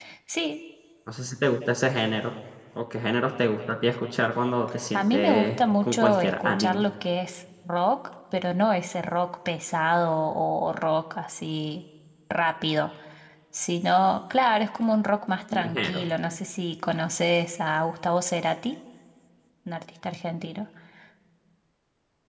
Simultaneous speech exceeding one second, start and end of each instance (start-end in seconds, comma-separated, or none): 4.9-6.8